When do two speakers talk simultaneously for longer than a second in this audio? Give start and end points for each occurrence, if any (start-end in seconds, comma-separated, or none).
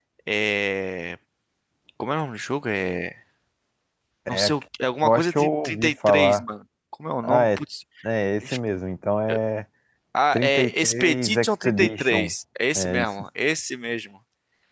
5.0-6.4, 10.3-12.3